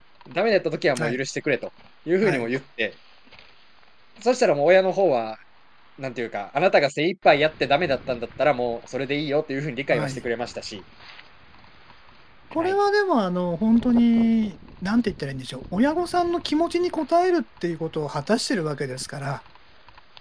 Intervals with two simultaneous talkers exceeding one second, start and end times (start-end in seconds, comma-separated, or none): none